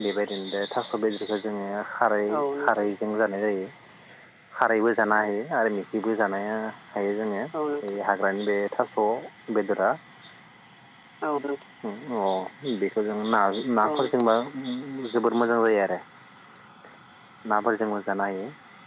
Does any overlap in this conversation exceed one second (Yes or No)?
No